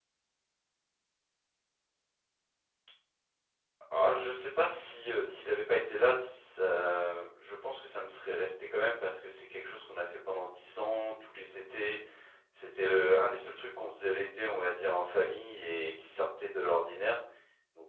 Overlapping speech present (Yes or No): No